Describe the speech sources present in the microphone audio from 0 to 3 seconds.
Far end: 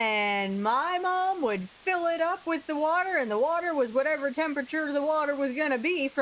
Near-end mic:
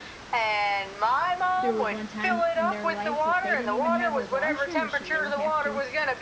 both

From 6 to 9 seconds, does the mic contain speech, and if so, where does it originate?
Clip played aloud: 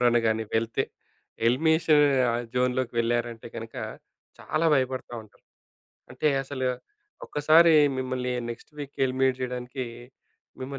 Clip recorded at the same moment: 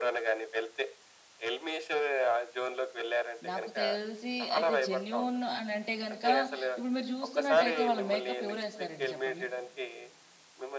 both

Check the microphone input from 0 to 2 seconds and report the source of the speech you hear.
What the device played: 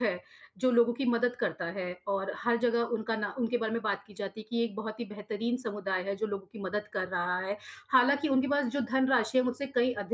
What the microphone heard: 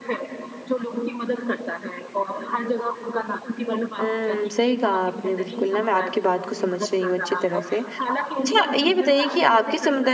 echo only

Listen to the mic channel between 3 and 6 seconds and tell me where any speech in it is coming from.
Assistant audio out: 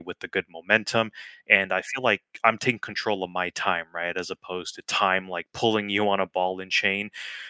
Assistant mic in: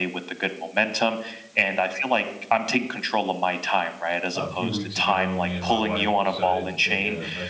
both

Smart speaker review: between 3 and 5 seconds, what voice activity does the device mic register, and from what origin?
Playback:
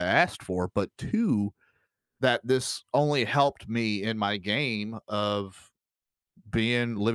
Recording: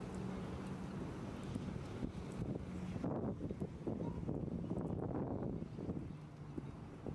neither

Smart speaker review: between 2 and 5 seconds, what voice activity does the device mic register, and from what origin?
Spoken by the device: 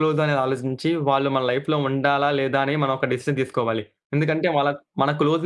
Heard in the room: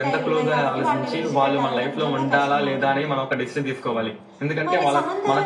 both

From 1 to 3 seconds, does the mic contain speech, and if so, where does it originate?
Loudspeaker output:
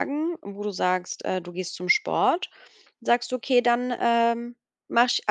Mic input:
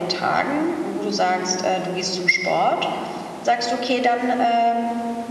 echo only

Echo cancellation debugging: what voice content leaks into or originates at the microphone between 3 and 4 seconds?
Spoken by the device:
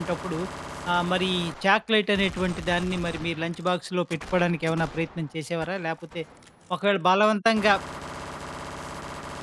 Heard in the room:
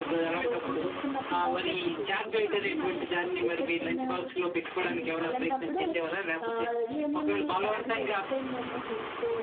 both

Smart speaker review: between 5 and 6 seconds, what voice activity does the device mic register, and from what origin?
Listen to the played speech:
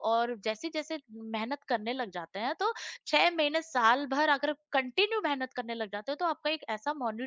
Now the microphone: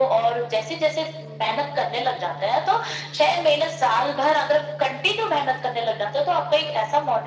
echo only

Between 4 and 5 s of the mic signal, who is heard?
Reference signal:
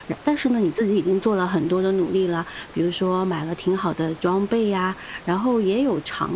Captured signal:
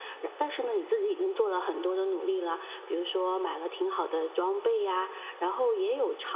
echo only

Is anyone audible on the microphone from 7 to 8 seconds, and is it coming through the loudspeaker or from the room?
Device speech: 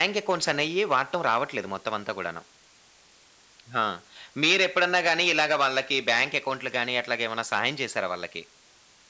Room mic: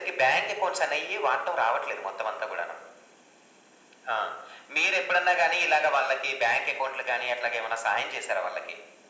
echo only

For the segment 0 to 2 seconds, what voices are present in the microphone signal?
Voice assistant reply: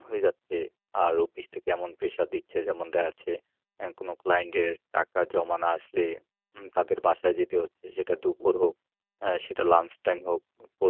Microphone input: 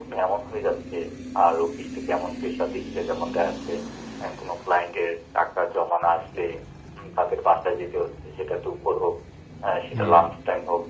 echo only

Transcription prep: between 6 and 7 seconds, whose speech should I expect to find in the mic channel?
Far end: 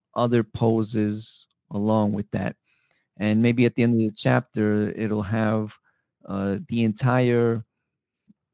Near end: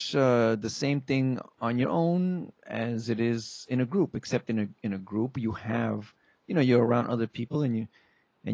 user only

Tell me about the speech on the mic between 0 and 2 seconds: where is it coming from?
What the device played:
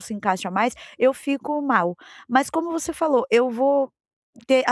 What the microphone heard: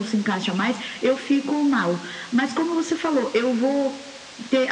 echo only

